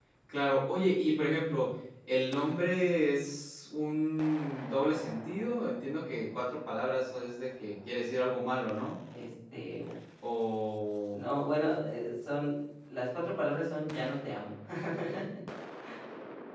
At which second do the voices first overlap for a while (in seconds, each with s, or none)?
none